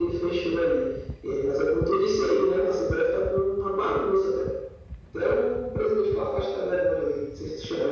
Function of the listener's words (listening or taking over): taking over